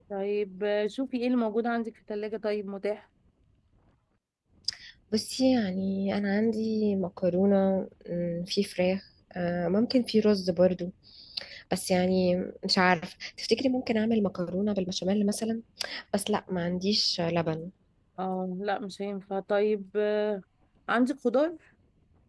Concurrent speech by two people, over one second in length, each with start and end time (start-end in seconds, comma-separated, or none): none